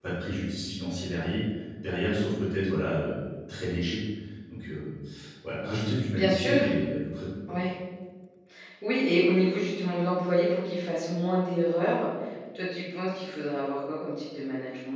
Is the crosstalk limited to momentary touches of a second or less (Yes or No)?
Yes